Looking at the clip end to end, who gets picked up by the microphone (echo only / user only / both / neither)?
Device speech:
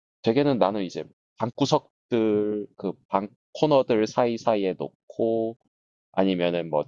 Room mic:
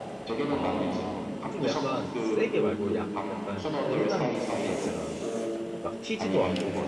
both